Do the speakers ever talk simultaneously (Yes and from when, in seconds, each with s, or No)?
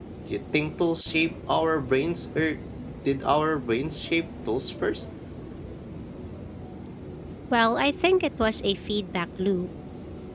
No